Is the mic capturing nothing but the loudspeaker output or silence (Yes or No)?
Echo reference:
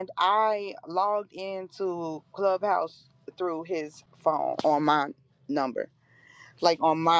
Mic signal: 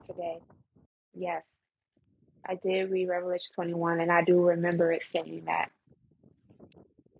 No